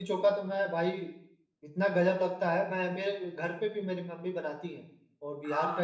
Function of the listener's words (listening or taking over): taking over